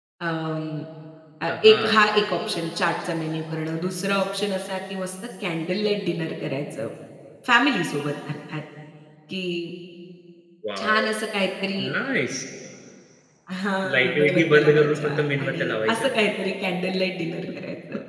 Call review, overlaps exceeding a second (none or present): present